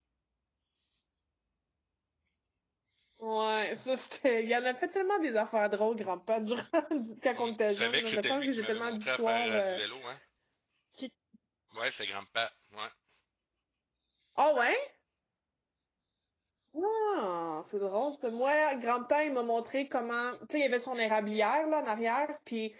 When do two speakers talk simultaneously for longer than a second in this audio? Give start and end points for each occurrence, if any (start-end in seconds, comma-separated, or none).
7.4-9.8